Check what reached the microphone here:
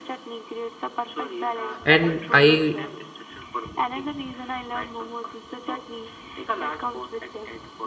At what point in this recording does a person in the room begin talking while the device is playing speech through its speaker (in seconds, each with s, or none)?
1.8 s